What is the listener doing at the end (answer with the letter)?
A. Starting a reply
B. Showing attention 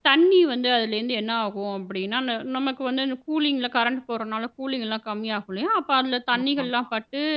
B